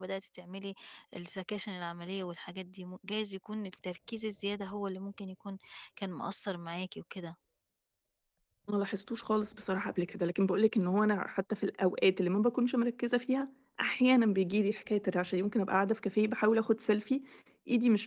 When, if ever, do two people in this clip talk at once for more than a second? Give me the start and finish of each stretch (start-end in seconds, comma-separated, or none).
none